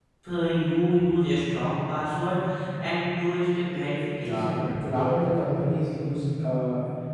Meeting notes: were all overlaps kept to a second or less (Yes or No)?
Yes